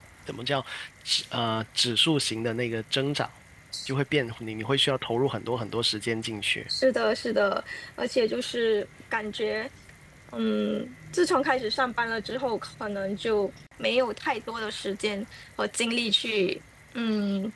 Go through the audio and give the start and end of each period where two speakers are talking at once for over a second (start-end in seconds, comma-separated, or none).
none